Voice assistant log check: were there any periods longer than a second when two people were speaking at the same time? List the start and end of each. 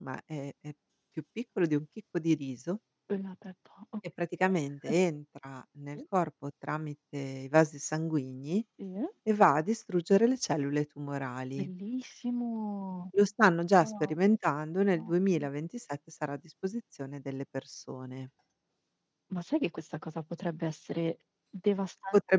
none

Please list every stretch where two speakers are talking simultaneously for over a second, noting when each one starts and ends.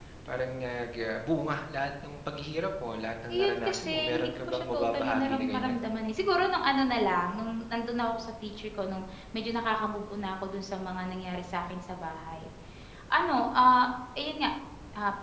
3.3-5.8

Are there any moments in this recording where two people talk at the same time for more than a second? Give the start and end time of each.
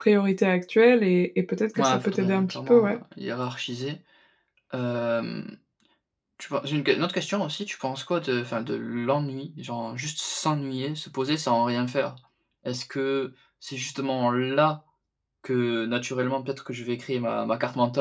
1.8-3.0

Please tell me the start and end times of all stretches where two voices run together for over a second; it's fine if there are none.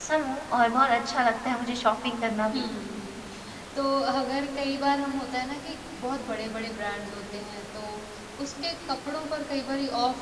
none

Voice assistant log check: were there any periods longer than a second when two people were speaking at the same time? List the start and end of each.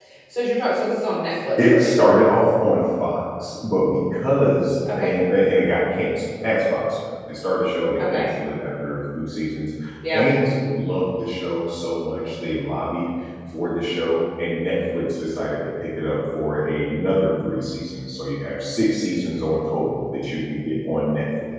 none

